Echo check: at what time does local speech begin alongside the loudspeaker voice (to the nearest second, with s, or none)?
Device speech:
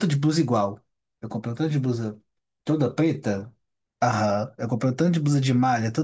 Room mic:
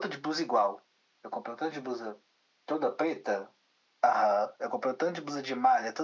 none